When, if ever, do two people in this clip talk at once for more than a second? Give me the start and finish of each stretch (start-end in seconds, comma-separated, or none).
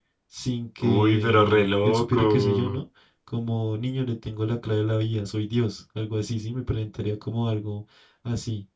0.8-2.8